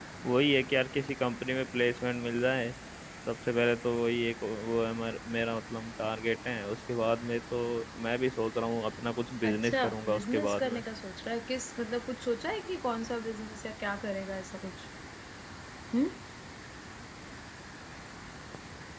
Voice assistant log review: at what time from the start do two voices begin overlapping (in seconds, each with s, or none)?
9.4 s